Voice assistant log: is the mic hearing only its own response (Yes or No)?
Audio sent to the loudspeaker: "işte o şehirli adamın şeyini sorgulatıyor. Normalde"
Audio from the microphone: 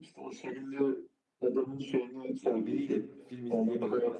No